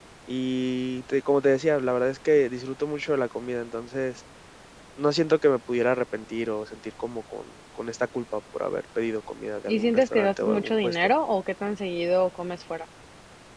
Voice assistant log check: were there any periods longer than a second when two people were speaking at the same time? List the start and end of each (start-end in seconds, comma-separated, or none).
9.7-11.0